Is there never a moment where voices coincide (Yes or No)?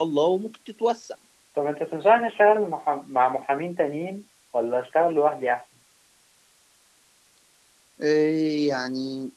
Yes